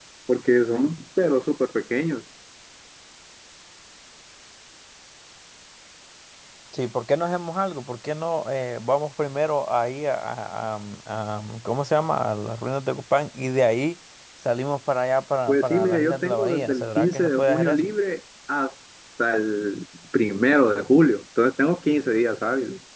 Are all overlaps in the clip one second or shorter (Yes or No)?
No